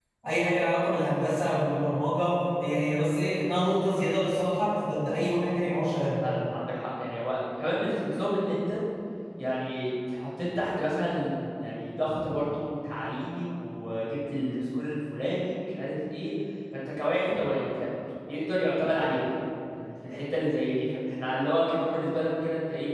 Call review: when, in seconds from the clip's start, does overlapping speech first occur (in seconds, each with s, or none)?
none